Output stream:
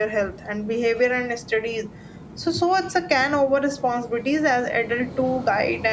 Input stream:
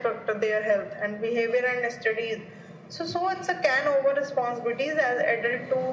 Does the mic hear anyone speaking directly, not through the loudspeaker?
No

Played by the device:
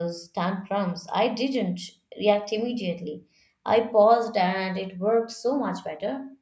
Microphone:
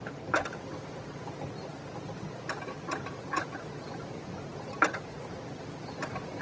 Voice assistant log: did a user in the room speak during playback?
No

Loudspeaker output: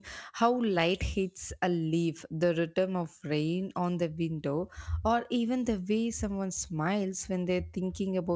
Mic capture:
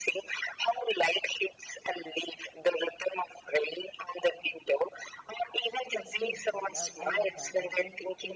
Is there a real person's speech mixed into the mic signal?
Yes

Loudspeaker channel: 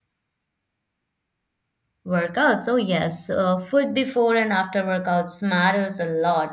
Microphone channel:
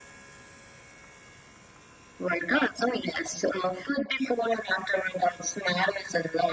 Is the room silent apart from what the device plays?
Yes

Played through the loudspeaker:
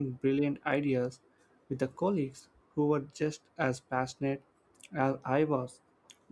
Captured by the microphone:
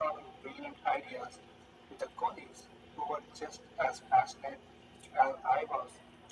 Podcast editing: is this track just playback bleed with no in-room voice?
Yes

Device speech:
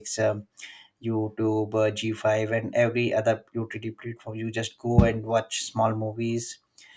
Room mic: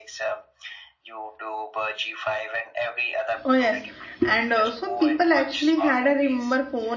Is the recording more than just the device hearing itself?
Yes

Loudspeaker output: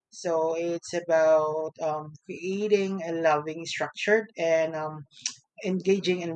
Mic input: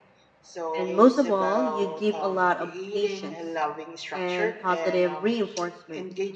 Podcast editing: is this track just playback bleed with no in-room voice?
No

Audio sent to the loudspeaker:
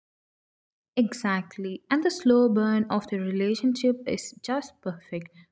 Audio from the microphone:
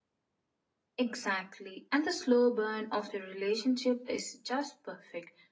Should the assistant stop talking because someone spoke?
No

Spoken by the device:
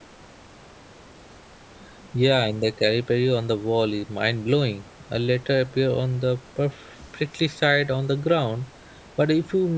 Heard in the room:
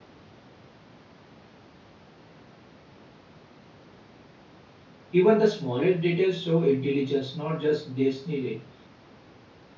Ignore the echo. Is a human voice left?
Yes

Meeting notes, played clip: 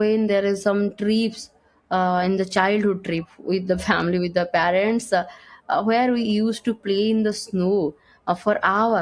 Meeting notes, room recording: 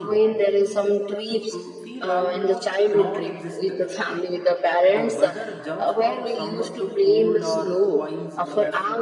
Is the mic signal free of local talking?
No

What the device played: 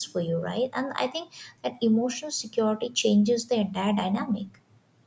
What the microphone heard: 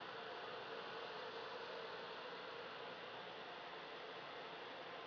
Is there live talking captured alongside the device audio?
No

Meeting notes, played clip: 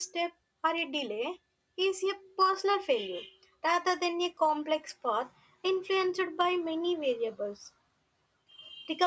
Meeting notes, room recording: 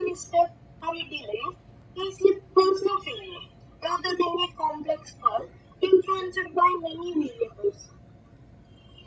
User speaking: No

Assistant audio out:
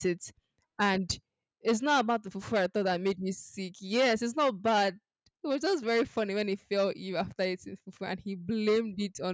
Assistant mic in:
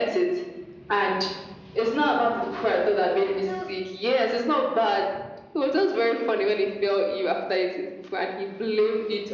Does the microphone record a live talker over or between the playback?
Yes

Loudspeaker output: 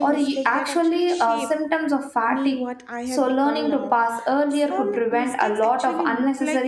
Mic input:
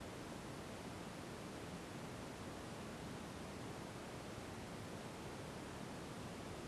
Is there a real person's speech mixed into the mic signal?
No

